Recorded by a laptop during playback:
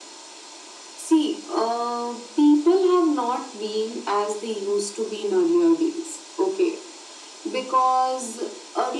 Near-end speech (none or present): none